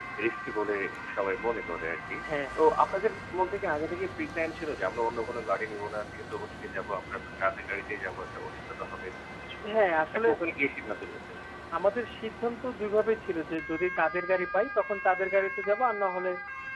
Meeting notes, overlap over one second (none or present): none